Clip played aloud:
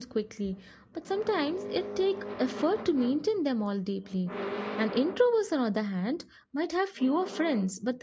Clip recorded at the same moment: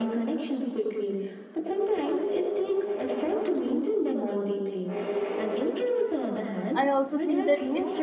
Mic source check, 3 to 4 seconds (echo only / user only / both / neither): echo only